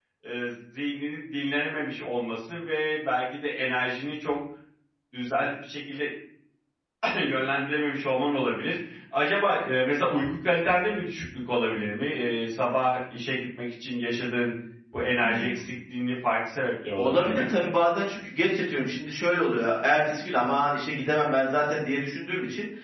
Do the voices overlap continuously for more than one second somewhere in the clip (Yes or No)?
No